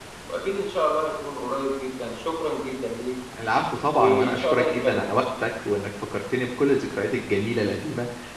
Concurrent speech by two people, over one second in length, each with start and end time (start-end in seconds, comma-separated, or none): 4.0-5.2